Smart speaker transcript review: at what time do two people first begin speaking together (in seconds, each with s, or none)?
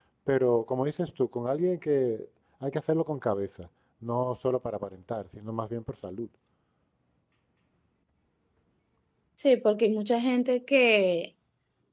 none